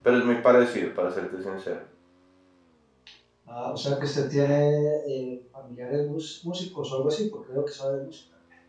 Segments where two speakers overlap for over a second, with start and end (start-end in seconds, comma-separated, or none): none